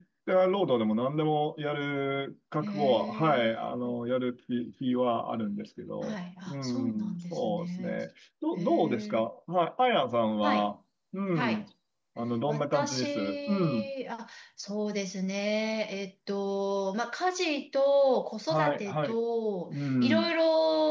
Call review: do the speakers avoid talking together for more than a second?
No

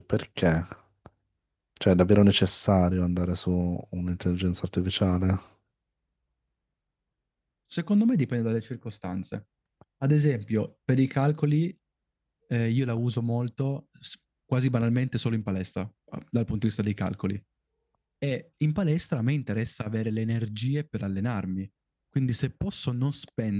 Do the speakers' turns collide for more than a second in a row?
No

